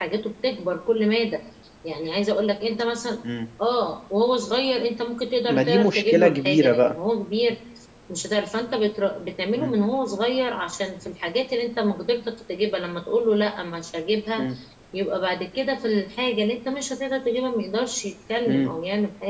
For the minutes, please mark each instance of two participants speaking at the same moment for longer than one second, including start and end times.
5.5-7.0

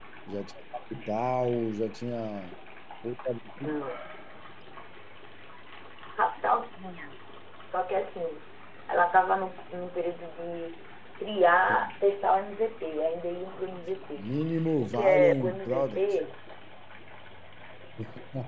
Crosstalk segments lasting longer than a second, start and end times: 14.8-16.0

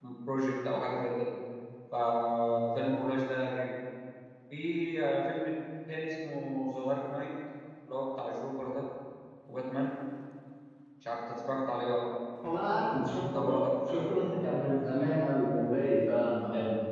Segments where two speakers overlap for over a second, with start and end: 13.3-14.9

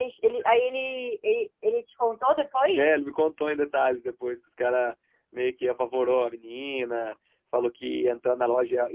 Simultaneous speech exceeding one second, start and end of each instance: none

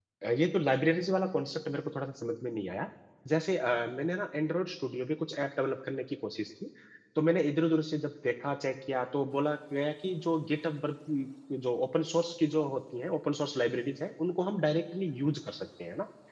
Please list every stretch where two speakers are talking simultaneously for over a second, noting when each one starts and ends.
none

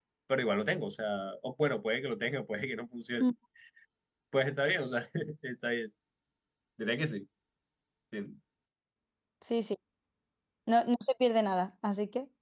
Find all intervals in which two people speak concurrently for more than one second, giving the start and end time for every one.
none

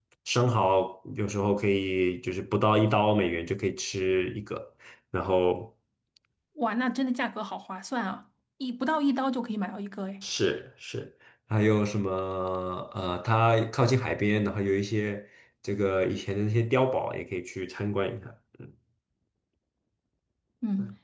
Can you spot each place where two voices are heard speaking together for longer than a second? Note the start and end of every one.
none

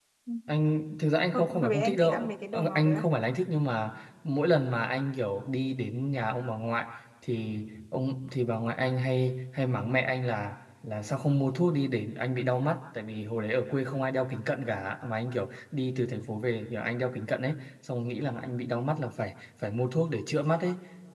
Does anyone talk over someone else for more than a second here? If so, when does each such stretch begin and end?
1.3-3.1

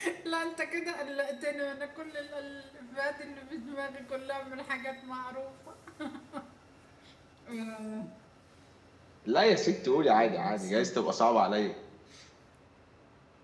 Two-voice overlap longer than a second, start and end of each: 9.4-11.0

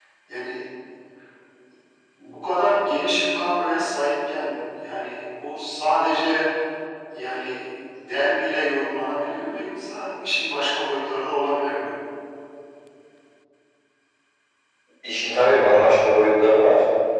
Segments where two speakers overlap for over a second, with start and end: none

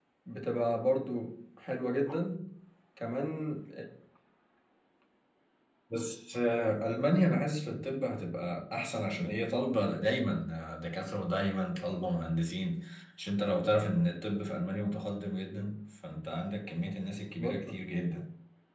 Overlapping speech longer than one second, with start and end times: none

